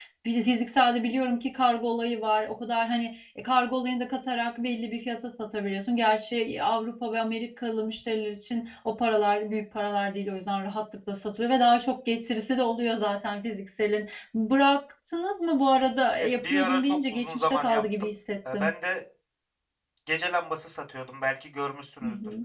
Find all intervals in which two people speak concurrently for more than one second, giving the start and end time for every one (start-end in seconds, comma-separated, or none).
16.2-17.8